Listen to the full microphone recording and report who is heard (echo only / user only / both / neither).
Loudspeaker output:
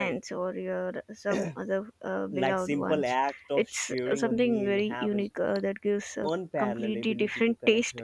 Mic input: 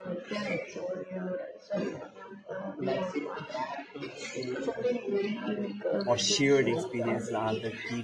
both